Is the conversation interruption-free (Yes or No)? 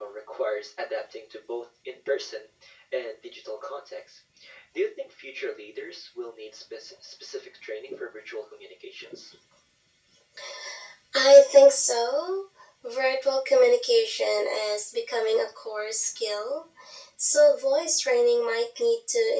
Yes